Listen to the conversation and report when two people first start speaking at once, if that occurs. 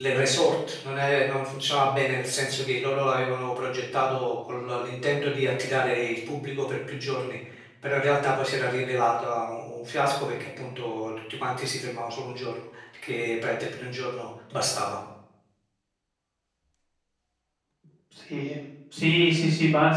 none

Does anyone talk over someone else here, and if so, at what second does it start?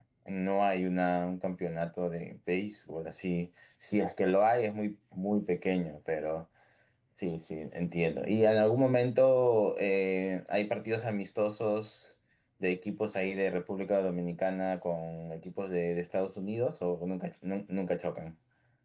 none

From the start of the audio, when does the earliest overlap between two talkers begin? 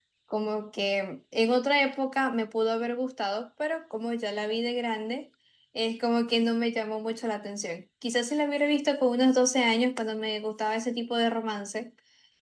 none

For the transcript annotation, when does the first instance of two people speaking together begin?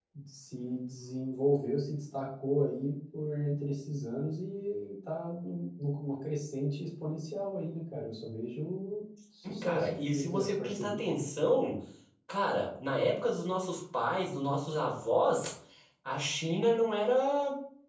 9.4 s

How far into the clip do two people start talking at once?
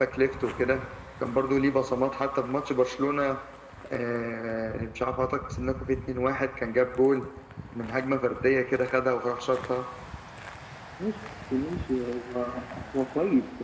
none

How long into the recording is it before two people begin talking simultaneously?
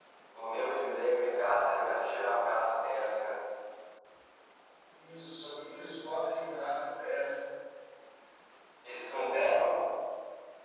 none

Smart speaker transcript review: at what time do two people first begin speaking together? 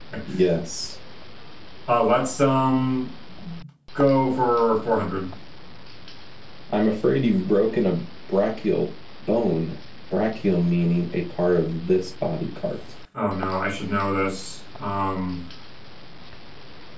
none

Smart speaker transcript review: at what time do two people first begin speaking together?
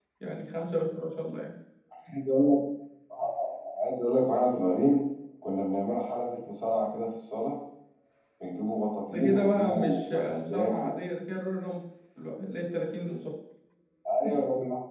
9.1 s

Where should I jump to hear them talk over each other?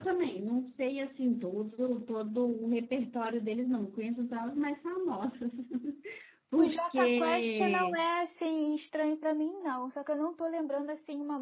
6.6 s

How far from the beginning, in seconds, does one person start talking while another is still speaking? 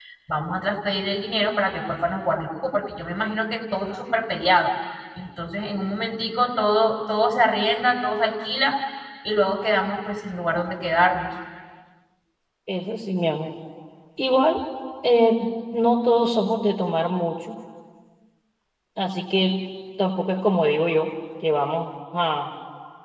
none

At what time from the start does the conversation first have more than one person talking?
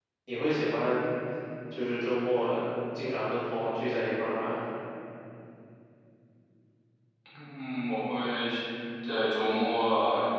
none

